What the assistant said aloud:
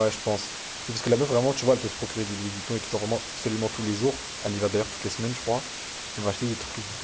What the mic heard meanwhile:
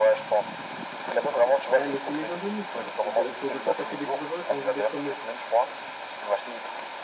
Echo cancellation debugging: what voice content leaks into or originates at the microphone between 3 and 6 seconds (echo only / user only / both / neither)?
both